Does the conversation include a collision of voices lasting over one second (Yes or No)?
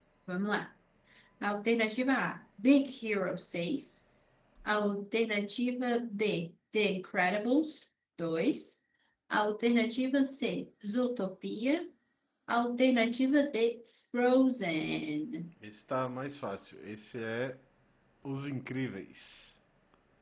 No